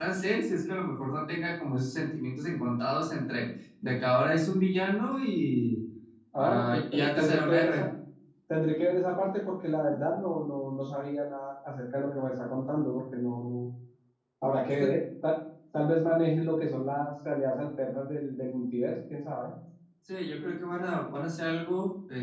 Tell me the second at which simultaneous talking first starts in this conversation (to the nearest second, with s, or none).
6 s